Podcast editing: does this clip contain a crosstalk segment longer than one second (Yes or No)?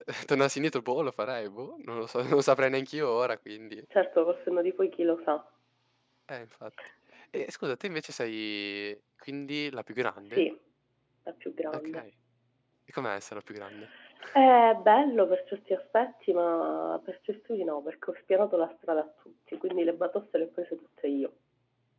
No